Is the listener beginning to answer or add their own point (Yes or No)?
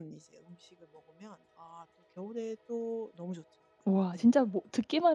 Yes